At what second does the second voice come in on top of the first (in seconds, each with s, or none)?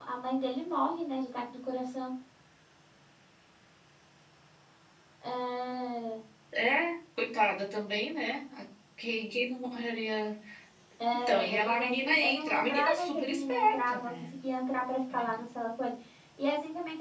11.3 s